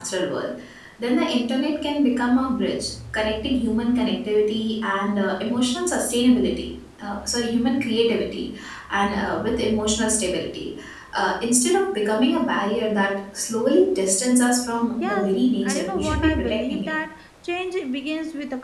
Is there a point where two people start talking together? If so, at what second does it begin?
15 s

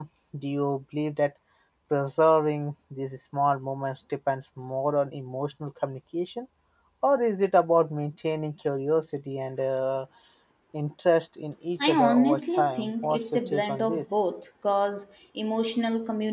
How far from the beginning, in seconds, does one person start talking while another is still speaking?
12 s

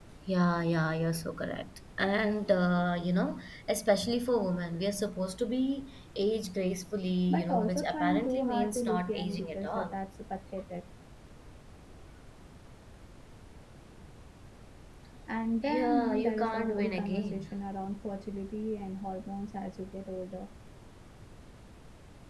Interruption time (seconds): 7 s

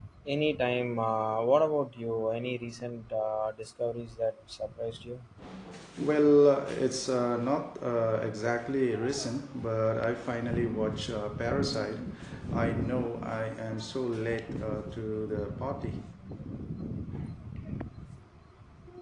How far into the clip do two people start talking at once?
none

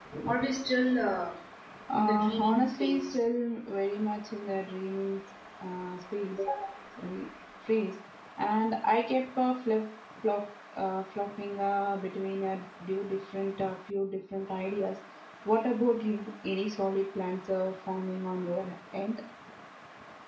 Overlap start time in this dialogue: 2 s

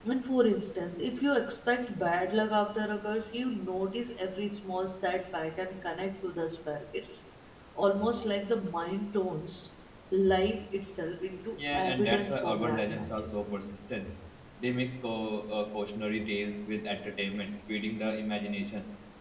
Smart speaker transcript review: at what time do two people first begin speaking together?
12 s

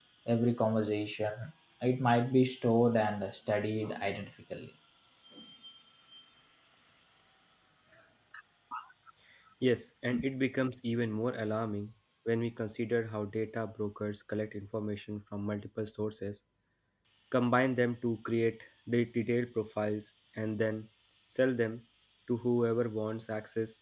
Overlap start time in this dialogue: none

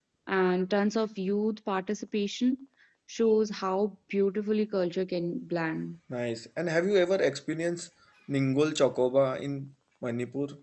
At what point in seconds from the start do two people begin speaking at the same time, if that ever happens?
none

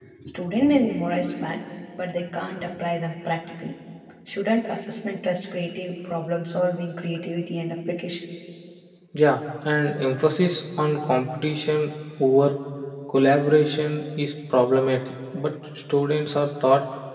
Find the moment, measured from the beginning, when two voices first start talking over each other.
none

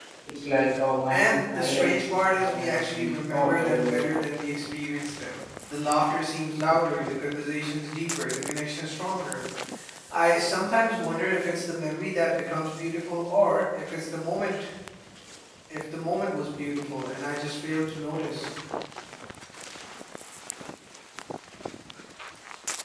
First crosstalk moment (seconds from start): 1 s

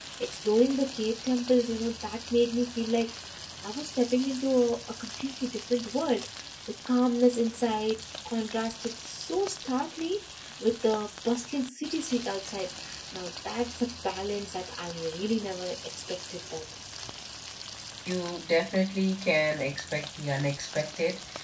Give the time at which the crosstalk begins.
none

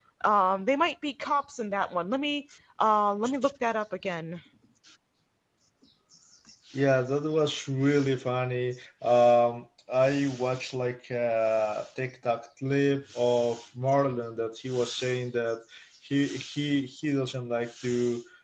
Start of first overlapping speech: none

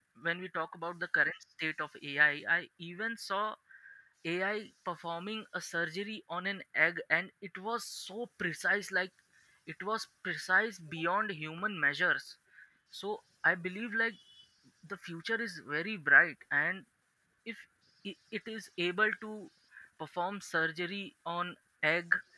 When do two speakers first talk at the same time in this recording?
none

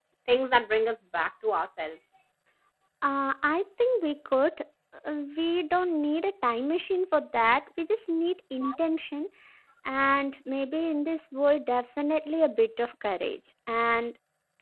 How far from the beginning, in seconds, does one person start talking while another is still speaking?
none

